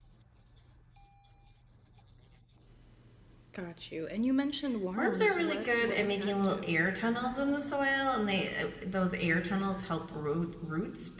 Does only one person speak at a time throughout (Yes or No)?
No